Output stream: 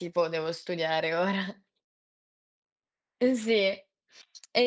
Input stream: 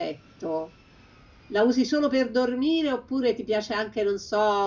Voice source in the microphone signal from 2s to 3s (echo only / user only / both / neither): user only